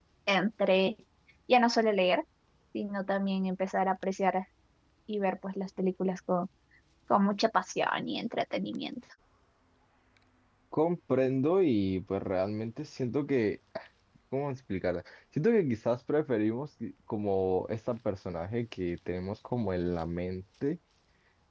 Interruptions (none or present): none